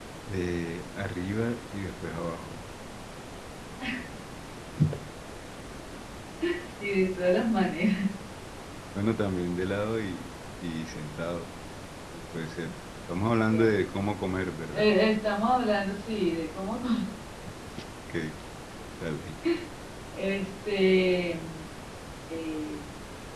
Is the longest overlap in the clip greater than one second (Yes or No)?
No